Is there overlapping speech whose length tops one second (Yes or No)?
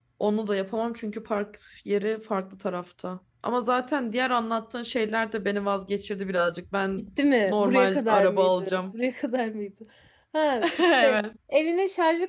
Yes